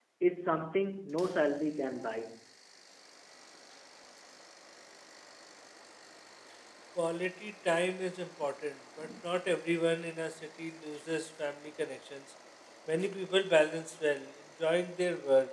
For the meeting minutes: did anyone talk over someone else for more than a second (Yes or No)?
No